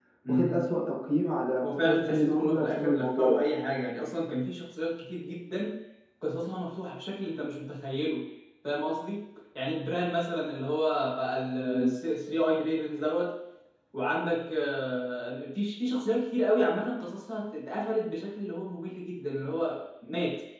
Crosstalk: present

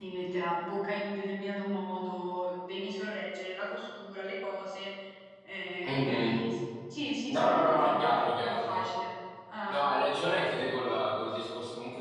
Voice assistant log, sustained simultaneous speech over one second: present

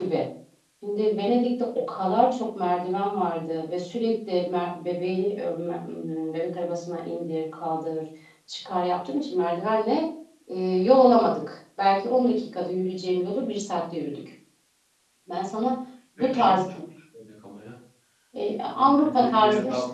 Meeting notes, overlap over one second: present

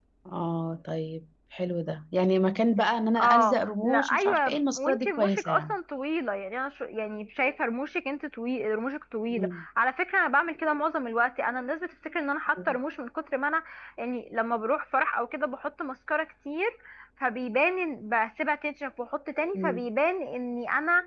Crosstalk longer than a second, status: present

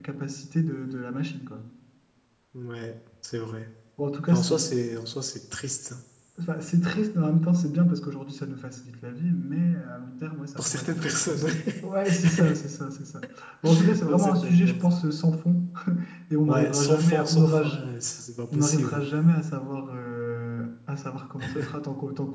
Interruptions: present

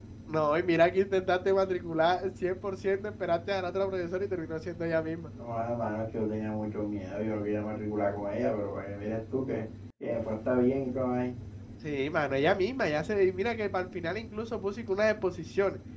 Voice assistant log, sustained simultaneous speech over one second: none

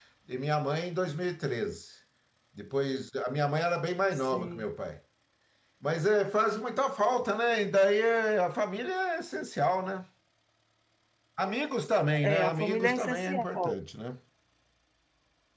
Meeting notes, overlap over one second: present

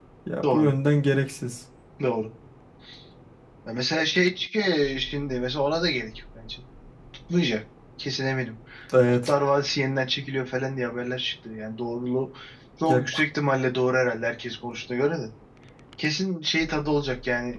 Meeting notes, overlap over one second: none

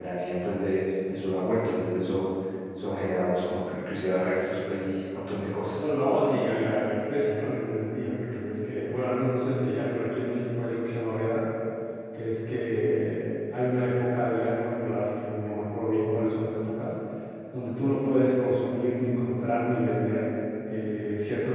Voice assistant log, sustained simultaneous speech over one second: none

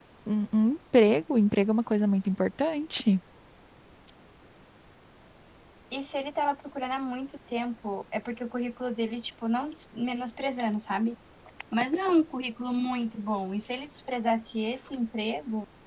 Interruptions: none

